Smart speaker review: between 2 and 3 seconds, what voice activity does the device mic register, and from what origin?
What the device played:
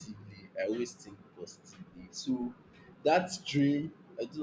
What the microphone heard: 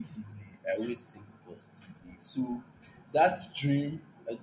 echo only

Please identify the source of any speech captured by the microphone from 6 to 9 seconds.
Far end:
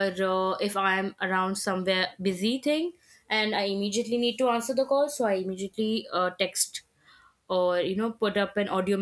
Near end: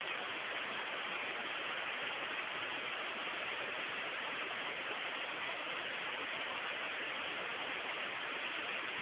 neither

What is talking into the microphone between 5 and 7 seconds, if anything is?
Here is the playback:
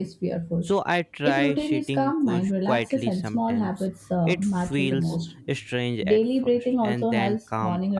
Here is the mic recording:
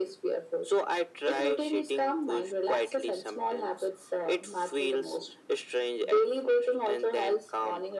echo only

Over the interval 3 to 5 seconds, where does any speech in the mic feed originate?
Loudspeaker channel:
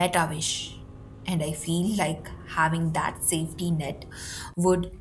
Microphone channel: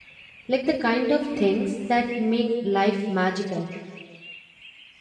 user only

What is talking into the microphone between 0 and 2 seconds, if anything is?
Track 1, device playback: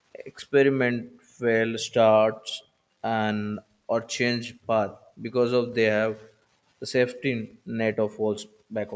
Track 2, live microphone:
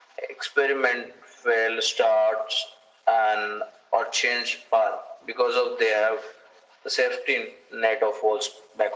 echo only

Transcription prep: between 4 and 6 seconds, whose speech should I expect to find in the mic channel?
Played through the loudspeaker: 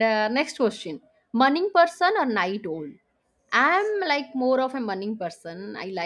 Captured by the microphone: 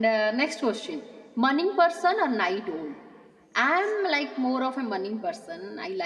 echo only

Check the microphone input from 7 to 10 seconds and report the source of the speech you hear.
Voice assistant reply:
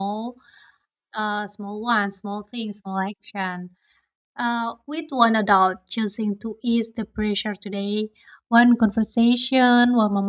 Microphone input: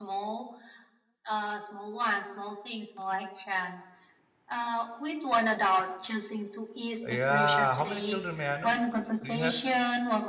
both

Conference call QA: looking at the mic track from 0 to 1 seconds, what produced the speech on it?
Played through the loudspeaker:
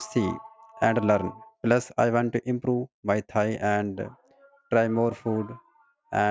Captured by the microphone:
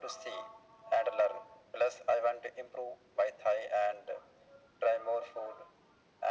echo only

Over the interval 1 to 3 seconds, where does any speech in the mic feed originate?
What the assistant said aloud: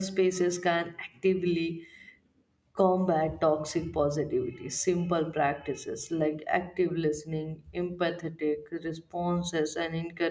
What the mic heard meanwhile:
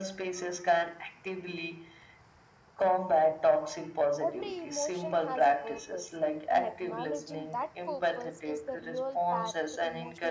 echo only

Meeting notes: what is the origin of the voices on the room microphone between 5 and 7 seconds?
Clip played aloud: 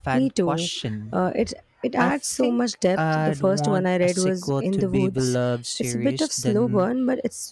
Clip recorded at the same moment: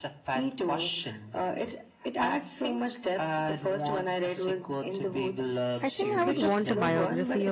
both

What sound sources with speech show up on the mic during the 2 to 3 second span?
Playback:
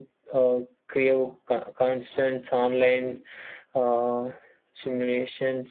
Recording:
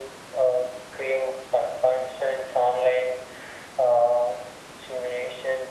echo only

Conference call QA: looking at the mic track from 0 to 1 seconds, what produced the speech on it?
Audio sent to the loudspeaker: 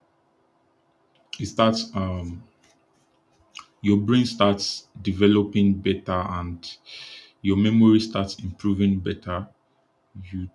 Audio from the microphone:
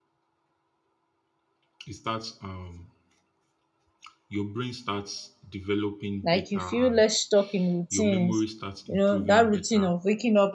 neither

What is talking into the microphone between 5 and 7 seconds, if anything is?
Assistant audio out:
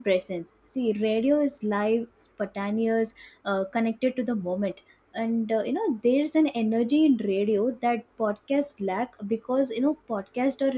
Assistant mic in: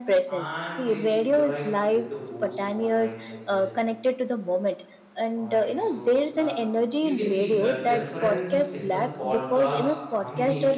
both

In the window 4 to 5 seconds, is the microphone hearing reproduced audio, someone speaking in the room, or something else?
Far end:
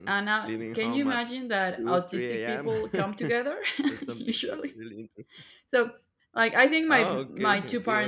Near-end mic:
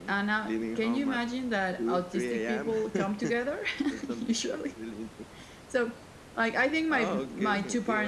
echo only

